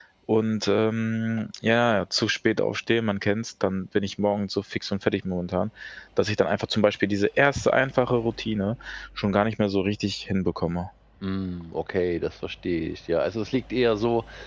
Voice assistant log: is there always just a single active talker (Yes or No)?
Yes